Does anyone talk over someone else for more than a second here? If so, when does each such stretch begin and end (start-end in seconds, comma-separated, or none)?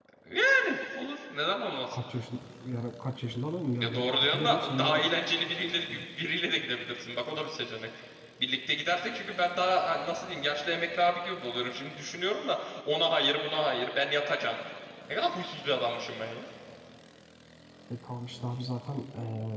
3.8-5.0